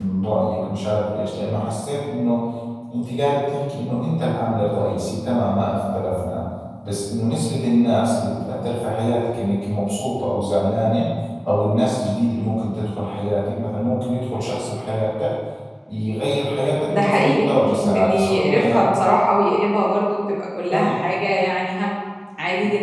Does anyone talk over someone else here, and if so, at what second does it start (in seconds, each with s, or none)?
16.9 s